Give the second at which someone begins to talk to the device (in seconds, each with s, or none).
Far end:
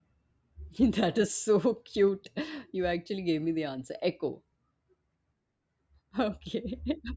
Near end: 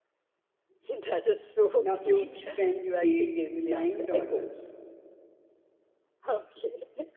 1.8 s